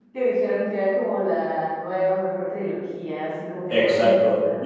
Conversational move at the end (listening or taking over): taking over